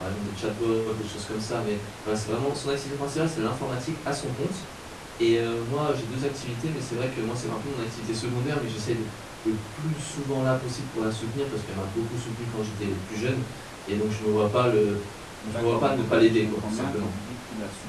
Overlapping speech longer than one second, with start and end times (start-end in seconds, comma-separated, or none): 15.5-17.1